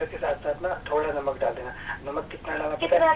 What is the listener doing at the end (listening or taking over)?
listening